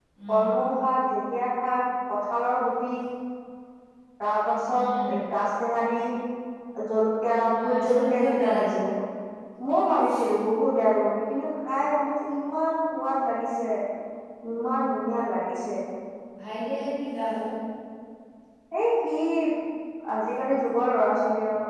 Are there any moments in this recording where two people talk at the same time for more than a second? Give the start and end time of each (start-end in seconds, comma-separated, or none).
7.5-8.8